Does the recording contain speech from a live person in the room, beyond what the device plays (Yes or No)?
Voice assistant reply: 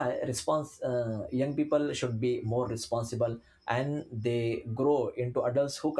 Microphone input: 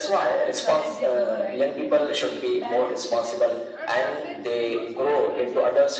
Yes